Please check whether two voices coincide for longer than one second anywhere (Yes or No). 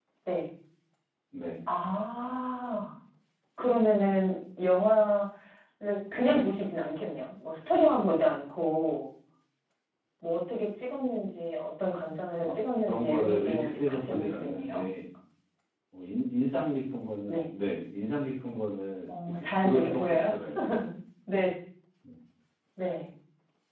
Yes